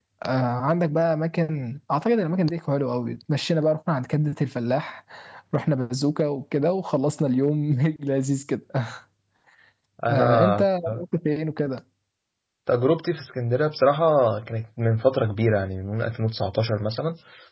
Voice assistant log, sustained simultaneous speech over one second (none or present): none